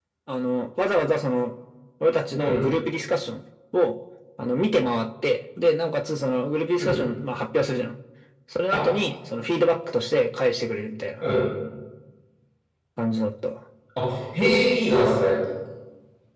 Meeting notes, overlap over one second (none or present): none